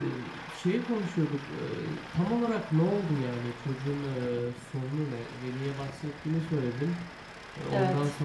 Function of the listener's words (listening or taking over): listening